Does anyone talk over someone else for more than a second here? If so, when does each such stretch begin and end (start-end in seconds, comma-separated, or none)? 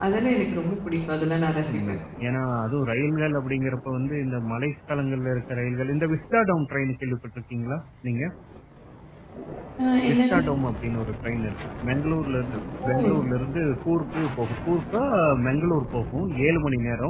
none